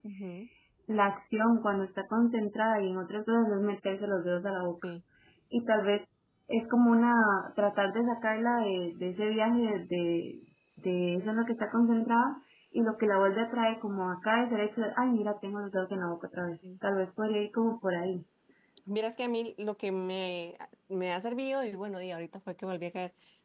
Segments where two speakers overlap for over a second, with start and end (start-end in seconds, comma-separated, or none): none